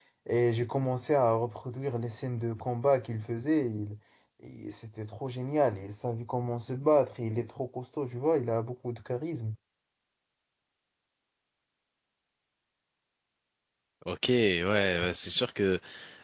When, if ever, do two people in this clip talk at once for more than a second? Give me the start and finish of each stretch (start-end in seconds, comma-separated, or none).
none